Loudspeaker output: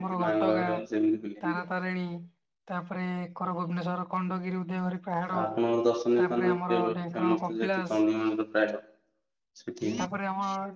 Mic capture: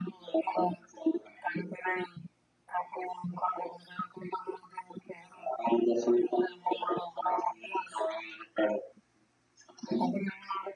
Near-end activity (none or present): none